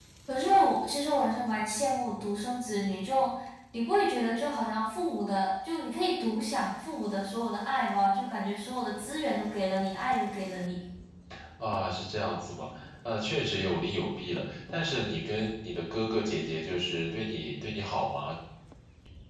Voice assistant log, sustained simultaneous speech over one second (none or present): none